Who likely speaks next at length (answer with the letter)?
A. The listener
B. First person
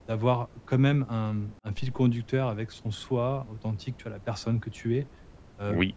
B